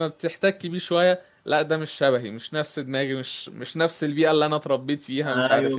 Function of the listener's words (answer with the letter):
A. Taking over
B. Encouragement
A